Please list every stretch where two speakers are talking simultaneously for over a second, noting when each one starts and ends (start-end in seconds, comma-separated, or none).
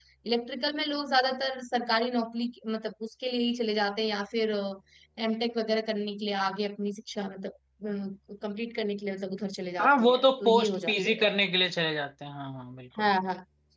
9.8-11.2